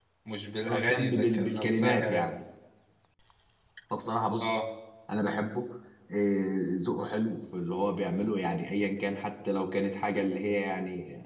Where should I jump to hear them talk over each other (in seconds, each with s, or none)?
0.6 s